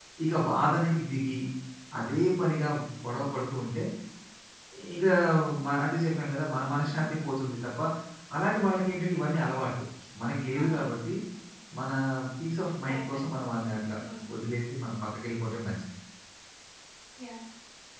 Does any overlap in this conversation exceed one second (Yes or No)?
No